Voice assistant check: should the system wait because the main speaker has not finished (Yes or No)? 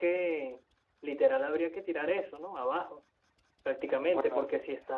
Yes